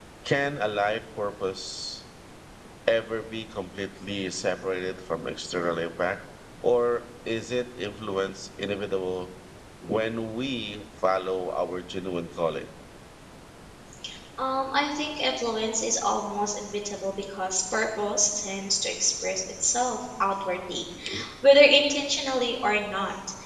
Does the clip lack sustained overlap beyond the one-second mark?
Yes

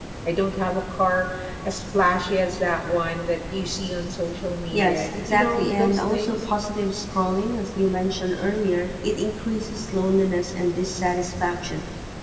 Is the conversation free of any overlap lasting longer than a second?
No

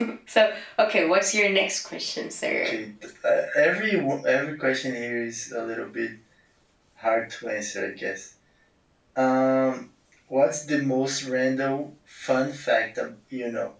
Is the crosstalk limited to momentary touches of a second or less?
Yes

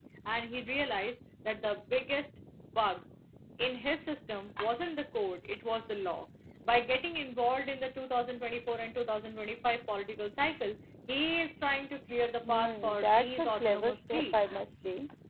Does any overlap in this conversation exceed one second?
Yes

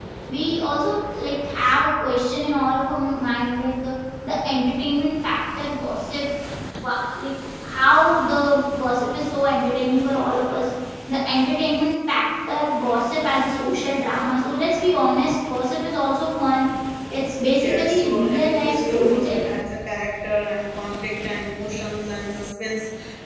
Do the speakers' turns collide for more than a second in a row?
Yes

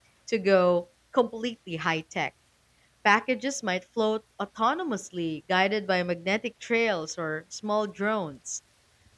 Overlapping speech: No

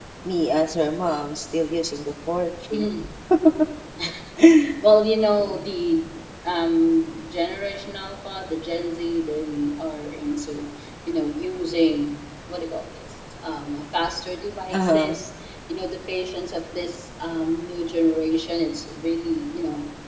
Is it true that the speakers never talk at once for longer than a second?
Yes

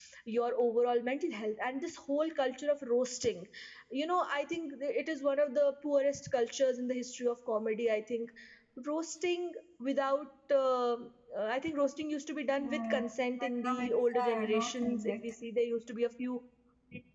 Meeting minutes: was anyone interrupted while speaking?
Yes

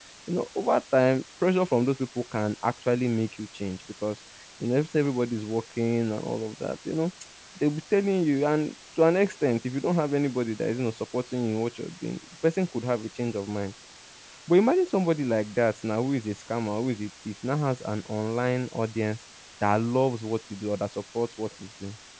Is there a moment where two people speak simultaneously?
No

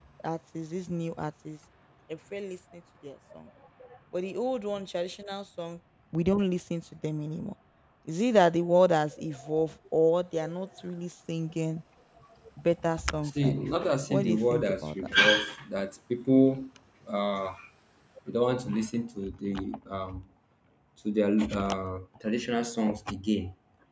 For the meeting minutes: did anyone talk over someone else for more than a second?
Yes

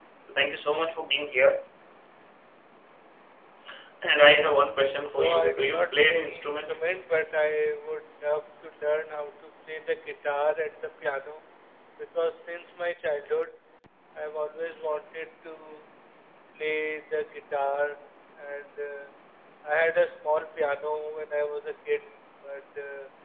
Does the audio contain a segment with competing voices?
Yes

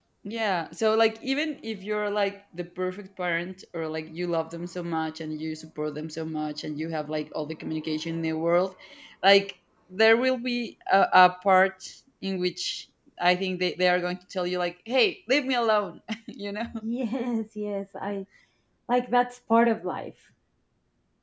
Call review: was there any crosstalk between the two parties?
No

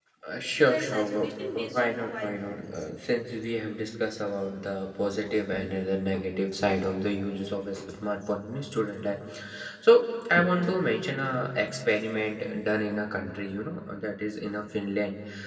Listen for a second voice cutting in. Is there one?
Yes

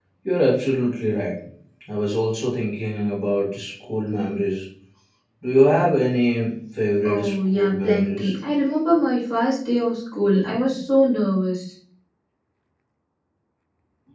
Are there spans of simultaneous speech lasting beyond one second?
Yes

